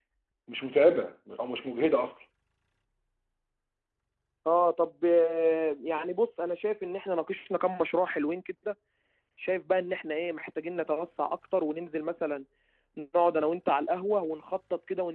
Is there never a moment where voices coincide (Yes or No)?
Yes